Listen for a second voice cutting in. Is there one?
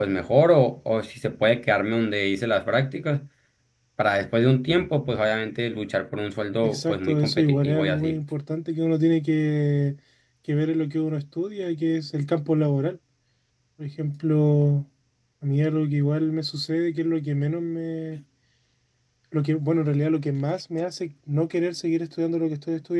Yes, from 6.6 s

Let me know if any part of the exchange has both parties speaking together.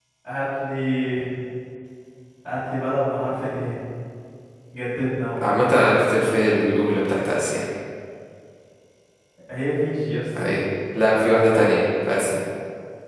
No

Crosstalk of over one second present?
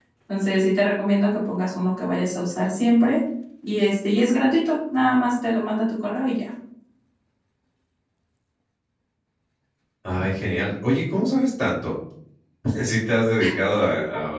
No

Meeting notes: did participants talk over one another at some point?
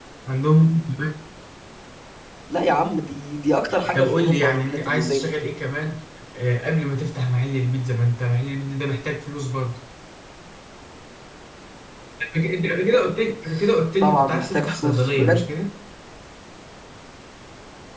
Yes, from 3.9 s

